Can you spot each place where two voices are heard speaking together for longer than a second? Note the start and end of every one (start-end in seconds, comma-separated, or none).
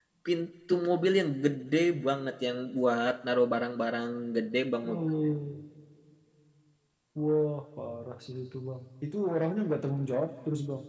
none